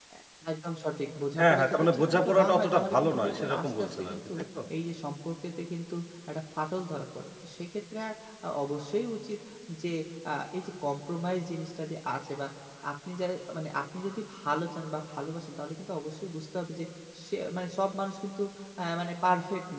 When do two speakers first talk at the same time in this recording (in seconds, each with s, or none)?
1.4 s